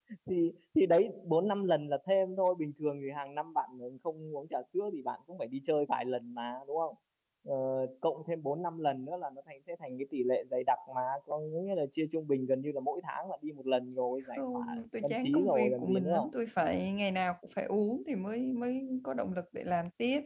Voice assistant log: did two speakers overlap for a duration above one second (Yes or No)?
Yes